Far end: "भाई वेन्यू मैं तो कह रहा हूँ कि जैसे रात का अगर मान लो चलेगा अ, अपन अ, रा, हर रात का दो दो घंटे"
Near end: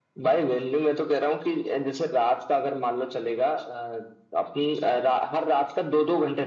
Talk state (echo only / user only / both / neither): echo only